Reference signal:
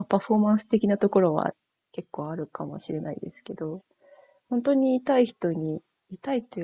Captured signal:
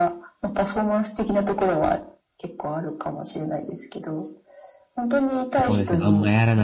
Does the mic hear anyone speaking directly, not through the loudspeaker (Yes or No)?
Yes